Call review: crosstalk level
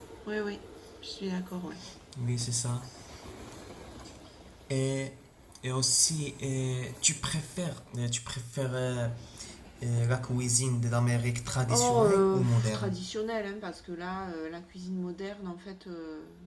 present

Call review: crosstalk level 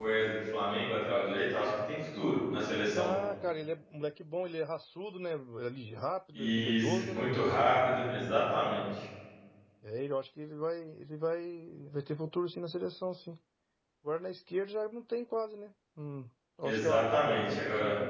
present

